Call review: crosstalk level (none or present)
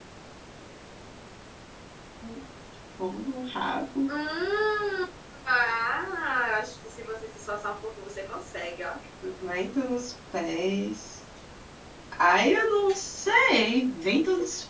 none